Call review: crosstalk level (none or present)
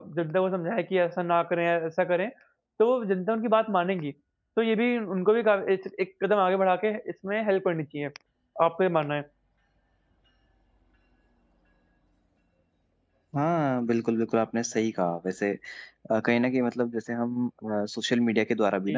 none